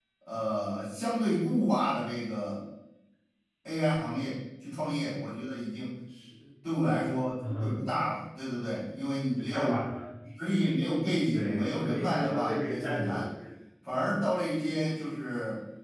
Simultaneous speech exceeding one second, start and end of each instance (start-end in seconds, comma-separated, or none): 11.3-13.3